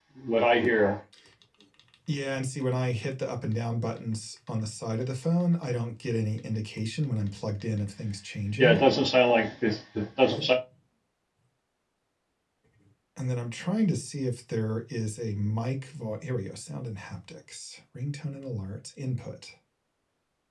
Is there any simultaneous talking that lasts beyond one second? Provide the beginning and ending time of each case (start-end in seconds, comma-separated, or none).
none